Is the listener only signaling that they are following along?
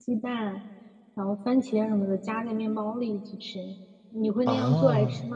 No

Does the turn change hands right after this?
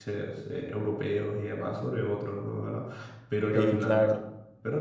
No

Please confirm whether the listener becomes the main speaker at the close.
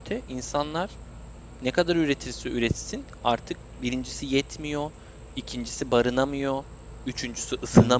No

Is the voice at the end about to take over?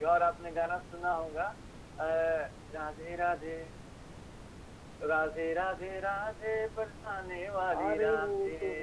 Yes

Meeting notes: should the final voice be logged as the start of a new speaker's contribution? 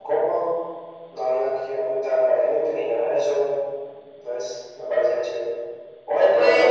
No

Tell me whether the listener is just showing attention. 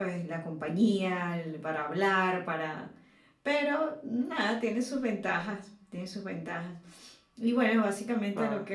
Yes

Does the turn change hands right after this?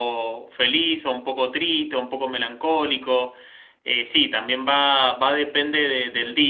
No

